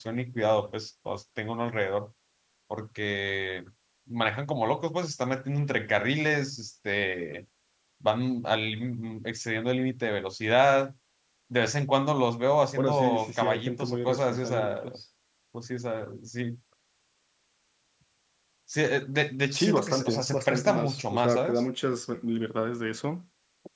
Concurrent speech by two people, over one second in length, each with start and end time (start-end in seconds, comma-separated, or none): 12.8-14.8, 19.5-21.6